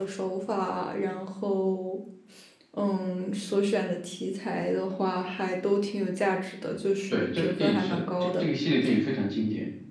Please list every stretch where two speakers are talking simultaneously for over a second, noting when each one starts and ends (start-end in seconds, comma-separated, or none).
7.1-8.4